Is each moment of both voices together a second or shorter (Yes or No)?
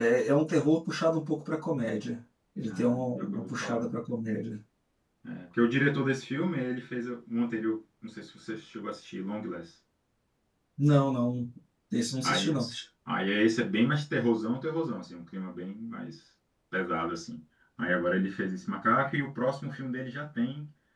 No